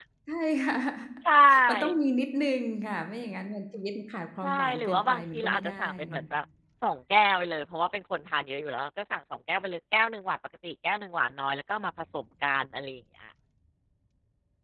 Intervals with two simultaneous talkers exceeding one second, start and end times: 4.4-6.2

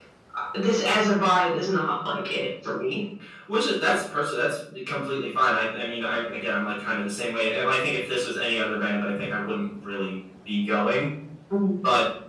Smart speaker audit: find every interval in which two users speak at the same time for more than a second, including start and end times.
none

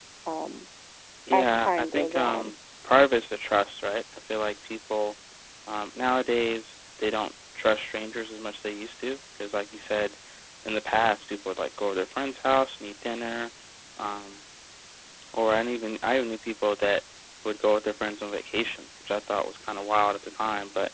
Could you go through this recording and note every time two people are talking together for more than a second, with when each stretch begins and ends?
1.3-2.5

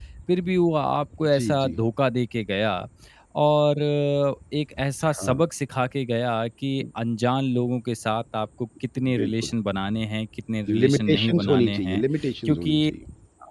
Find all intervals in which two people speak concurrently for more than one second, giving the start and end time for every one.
10.8-12.0

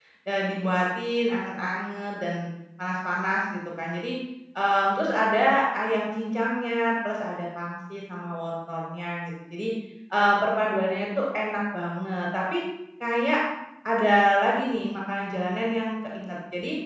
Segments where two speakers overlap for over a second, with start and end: none

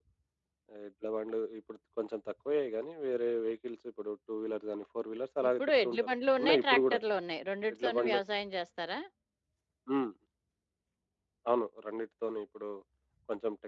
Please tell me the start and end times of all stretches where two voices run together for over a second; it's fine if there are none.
5.5-7.0

